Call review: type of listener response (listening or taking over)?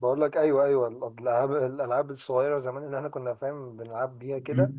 taking over